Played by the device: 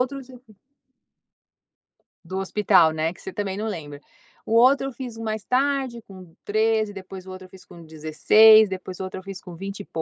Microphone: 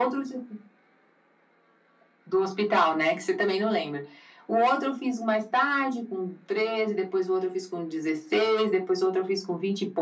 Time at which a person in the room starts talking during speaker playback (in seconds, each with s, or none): none